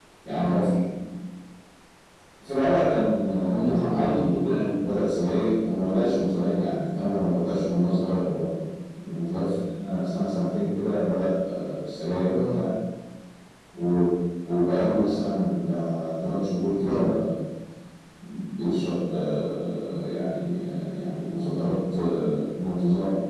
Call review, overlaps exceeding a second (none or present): present